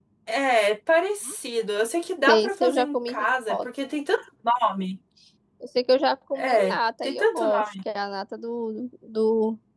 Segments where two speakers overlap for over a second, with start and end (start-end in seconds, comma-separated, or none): 2.3-3.7, 6.3-7.6